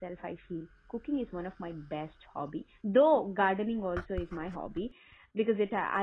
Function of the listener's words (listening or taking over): listening